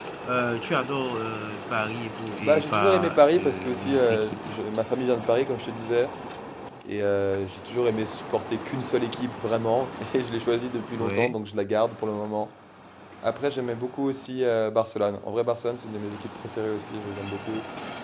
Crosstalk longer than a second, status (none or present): present